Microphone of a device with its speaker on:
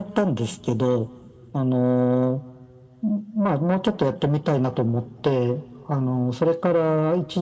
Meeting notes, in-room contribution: none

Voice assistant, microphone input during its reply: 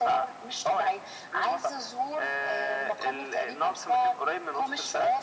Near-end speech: none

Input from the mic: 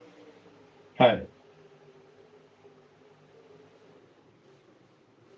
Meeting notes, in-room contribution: present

